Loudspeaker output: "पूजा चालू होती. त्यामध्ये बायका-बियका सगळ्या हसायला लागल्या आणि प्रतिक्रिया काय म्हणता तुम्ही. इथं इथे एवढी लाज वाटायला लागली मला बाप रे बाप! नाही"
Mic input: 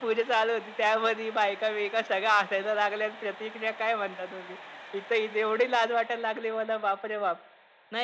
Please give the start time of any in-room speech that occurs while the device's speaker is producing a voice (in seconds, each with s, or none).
none